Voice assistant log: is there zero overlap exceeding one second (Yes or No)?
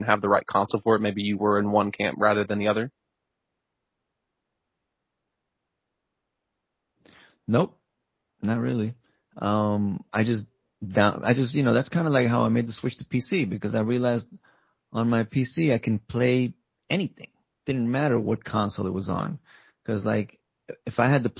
Yes